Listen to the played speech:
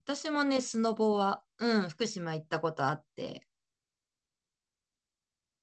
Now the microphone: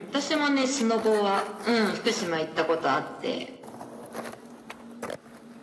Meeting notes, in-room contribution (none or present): none